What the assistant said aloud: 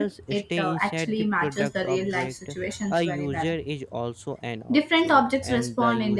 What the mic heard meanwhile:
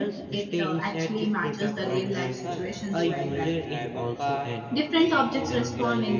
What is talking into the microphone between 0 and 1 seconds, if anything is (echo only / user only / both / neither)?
echo only